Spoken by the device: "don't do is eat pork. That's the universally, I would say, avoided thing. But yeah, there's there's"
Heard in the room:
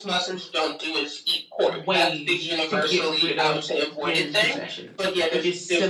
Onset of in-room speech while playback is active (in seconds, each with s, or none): 1.7 s